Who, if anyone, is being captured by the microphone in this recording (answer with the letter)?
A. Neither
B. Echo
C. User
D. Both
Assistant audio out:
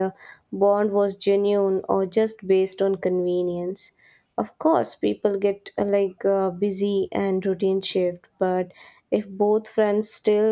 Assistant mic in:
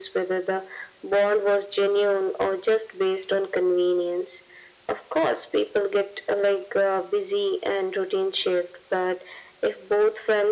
B